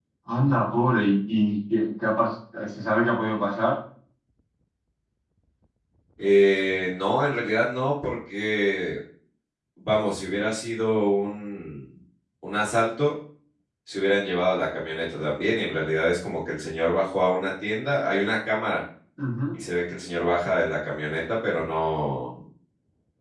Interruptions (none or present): none